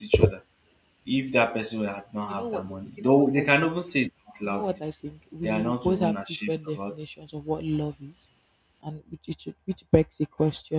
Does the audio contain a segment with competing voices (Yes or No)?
Yes